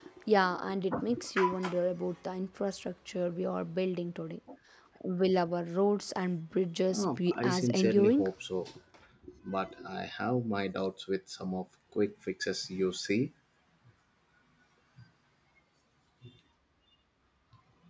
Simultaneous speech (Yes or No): Yes